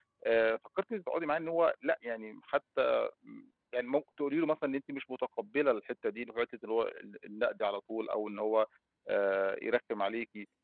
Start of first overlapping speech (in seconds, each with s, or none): none